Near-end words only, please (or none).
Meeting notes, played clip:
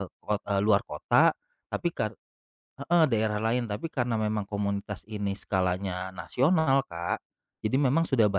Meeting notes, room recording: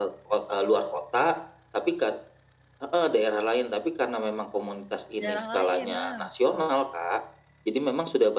daerah lain, nah.